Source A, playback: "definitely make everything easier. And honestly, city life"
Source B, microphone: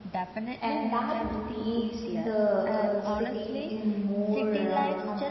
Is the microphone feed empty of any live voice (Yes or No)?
No